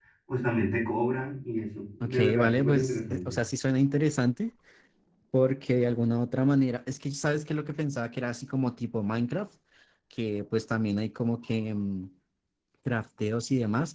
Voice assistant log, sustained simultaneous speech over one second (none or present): present